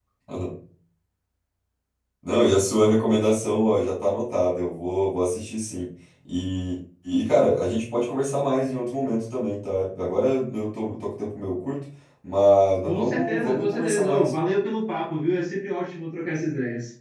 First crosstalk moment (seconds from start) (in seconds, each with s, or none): 12.9 s